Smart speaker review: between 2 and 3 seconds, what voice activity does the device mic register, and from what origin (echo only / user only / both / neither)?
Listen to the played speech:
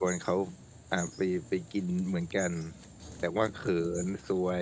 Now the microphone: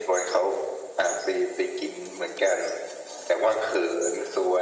echo only